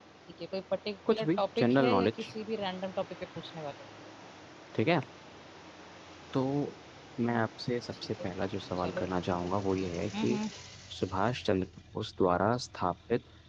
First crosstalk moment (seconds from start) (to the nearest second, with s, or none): 1 s